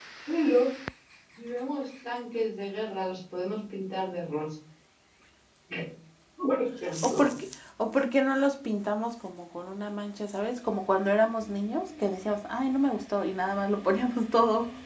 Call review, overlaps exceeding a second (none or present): none